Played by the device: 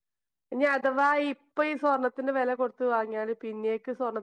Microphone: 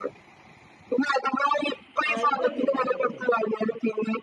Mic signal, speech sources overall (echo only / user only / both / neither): both